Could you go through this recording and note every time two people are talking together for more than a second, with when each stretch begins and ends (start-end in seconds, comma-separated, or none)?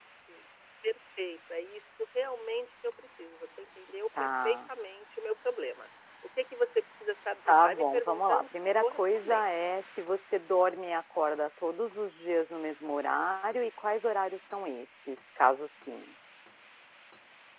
7.5-9.5